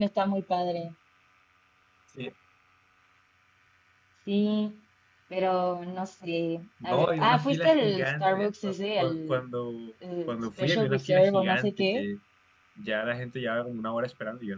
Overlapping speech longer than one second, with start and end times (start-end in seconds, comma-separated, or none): 6.8-9.4, 10.3-12.1